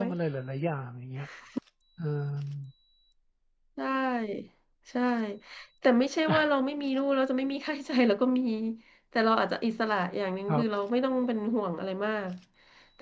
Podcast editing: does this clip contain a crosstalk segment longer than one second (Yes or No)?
No